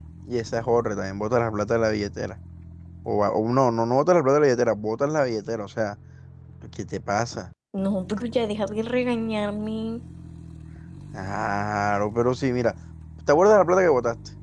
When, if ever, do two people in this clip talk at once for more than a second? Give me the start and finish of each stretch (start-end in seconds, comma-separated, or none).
none